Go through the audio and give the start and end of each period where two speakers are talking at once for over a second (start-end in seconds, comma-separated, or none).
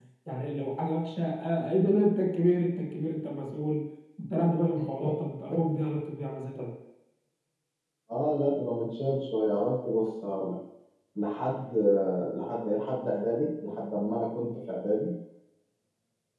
none